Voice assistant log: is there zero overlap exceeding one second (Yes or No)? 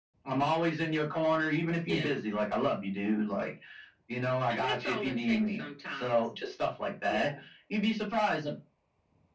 No